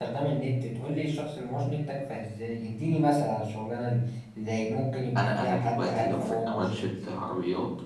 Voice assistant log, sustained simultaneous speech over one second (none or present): present